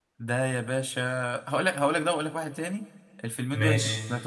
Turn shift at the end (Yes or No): No